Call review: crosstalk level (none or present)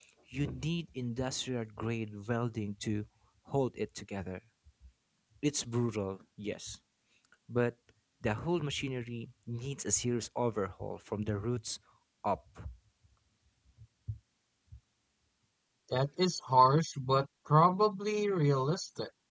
none